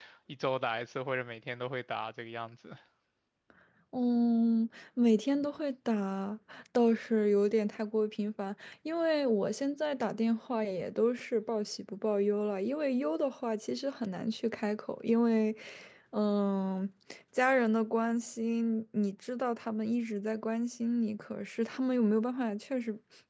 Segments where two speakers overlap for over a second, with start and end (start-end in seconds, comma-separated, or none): none